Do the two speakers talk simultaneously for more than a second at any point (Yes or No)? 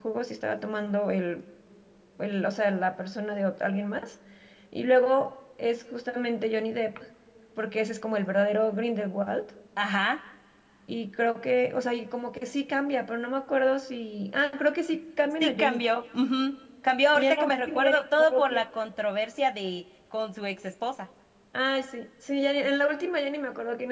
Yes